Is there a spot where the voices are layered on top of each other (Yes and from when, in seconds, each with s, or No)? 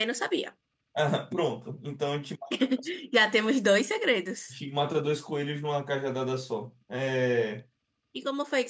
No